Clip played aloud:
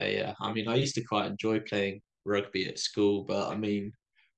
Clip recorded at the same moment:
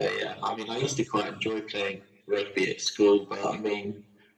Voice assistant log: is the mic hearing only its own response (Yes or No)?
Yes